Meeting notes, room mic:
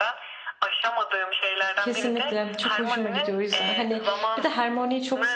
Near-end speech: present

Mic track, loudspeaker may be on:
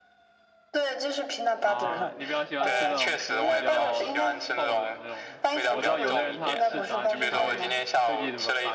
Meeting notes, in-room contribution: present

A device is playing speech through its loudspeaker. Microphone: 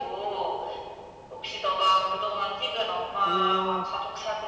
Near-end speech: present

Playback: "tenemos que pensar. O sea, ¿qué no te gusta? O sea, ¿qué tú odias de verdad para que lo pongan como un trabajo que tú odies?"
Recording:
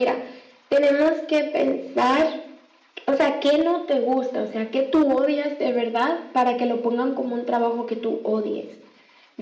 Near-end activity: none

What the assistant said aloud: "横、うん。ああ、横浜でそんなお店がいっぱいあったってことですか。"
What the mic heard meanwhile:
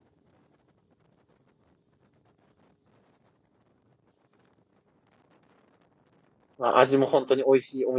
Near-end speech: present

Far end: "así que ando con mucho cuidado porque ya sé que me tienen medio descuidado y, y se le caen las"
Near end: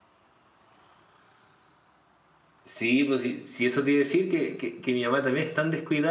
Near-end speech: present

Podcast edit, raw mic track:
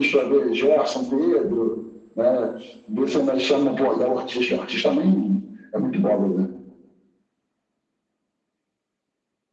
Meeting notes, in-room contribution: none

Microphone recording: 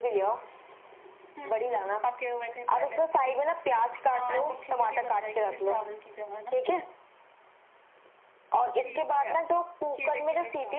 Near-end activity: present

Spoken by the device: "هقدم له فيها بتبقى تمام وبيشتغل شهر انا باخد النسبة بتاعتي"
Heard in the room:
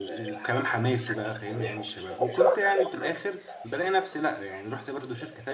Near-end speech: present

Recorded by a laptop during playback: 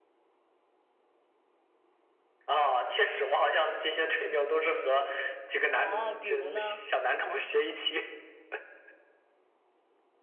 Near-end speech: present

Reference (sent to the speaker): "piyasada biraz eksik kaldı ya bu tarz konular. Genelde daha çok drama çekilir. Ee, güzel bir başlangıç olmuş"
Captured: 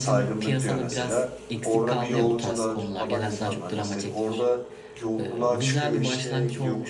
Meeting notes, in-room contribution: present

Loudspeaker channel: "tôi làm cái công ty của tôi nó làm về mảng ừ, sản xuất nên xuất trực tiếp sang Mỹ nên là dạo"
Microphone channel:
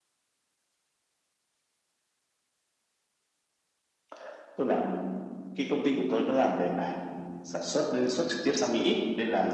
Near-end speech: none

